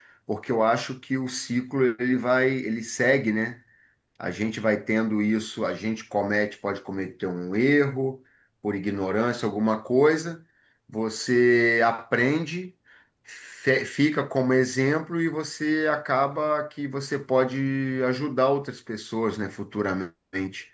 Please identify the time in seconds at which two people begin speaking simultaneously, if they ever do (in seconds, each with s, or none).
none